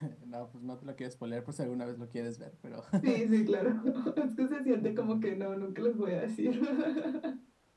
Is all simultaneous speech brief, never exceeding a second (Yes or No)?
Yes